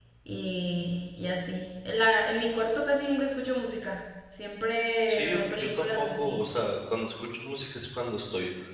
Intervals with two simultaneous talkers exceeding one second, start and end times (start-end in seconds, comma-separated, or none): 5.1-6.4